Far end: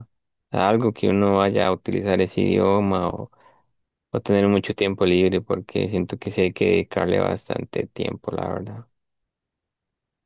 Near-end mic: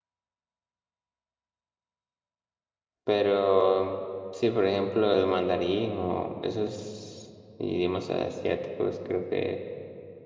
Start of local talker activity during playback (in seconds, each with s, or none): 3.0 s